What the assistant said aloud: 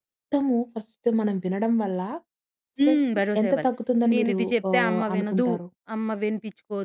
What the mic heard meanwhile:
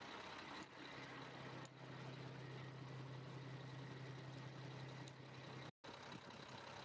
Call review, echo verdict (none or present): none